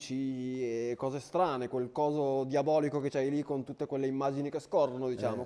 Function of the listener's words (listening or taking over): taking over